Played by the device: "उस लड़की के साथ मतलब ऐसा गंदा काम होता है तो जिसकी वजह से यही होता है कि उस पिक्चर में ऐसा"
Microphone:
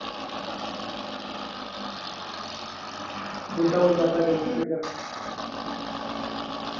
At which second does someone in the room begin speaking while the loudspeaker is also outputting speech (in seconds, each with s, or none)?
3.5 s